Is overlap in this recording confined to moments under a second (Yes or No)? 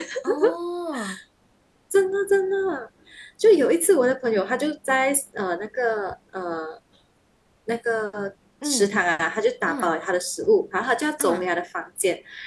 Yes